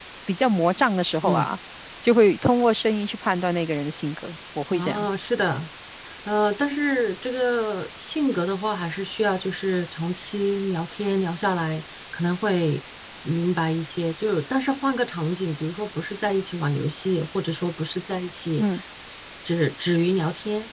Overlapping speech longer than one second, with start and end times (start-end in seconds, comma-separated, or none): none